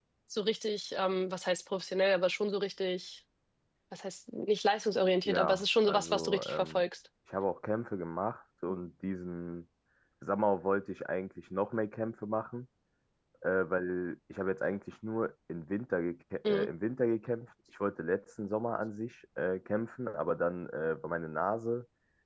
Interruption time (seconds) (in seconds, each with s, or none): 5.2 s